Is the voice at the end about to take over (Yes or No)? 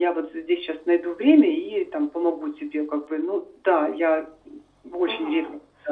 Yes